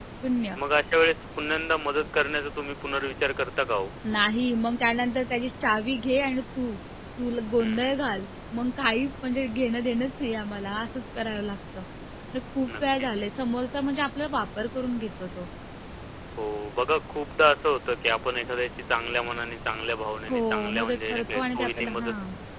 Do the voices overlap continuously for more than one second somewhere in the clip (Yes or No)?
Yes